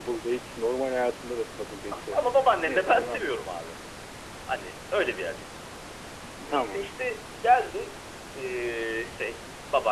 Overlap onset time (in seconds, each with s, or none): 1.9 s